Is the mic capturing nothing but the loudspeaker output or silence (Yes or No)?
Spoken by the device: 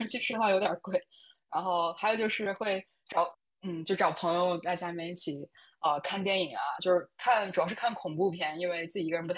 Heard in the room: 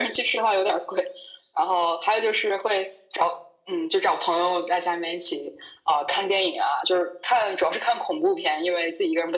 Yes